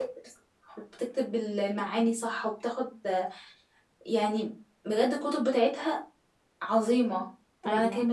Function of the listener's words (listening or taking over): taking over